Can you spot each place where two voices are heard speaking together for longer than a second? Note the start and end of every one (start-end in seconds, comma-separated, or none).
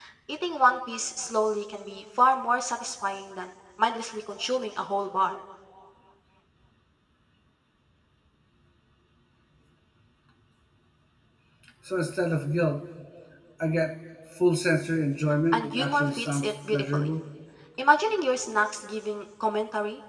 15.5-17.1